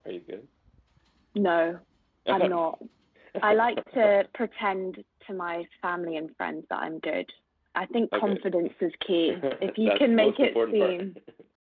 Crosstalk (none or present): present